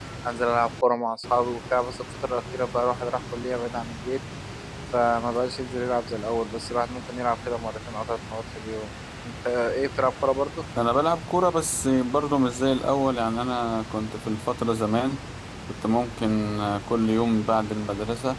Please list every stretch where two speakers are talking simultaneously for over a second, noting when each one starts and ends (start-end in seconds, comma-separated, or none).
none